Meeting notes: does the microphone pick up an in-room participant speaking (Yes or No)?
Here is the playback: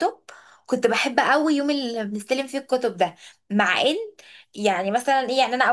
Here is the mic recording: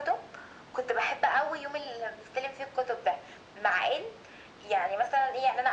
No